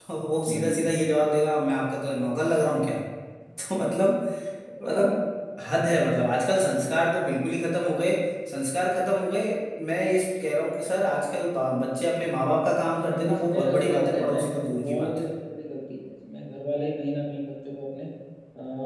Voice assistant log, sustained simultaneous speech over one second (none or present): present